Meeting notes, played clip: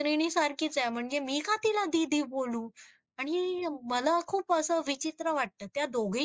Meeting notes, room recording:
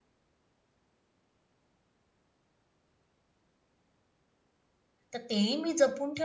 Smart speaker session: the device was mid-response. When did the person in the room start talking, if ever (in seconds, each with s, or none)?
5.1 s